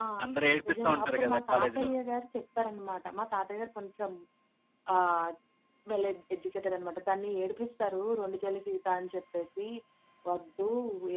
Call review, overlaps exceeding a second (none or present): present